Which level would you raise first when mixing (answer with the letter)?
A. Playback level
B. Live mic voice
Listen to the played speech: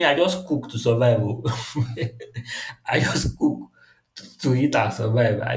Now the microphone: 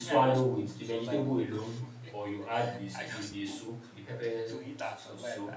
A